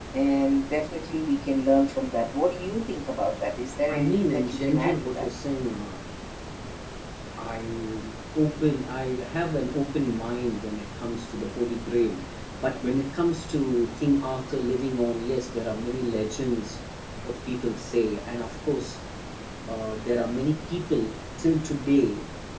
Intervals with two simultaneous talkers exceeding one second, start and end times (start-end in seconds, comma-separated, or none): 3.9-5.3